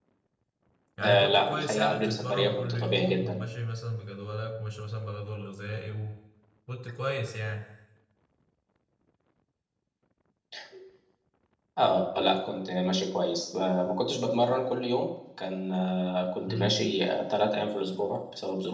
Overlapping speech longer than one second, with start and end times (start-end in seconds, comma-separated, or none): 1.0-3.4